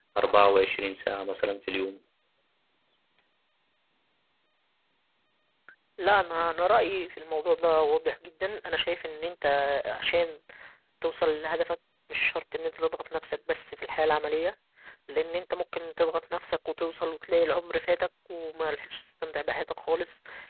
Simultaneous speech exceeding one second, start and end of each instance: none

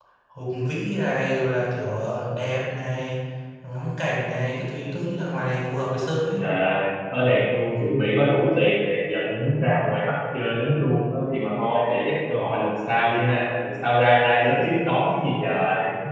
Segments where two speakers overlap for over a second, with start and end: none

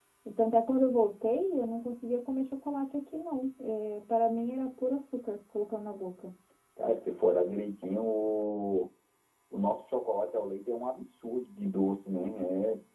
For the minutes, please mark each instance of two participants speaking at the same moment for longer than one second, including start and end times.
none

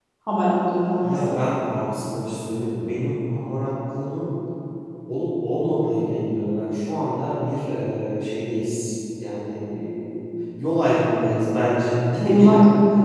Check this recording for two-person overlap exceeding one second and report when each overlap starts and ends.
none

